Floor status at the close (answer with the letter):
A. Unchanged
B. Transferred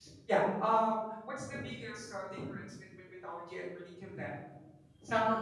A